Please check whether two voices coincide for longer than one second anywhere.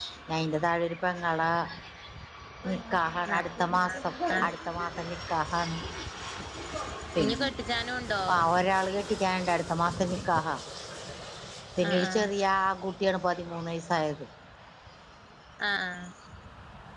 No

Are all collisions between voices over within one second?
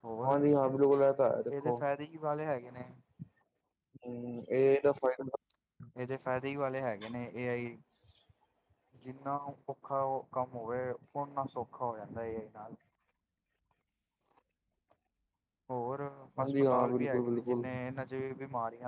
No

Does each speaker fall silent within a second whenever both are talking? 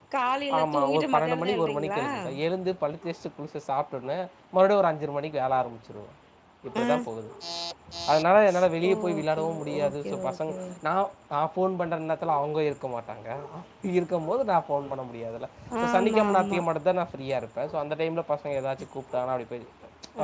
No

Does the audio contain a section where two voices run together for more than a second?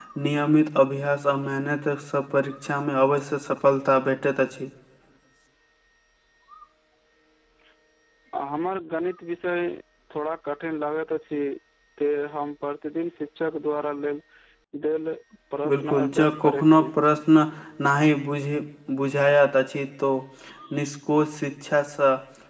Yes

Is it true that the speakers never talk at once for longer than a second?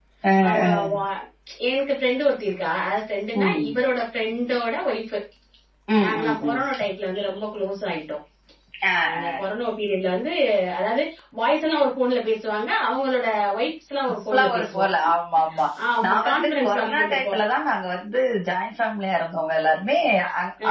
No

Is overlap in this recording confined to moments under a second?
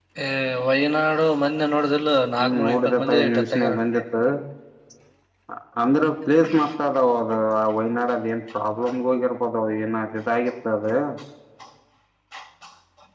No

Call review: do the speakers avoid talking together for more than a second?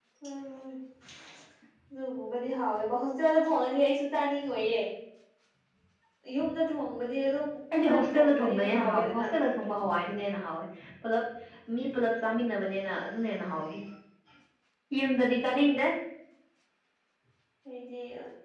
No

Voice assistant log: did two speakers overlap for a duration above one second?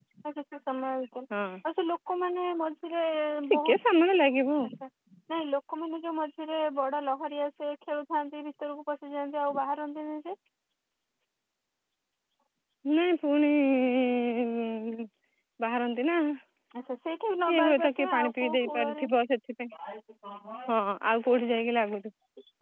Yes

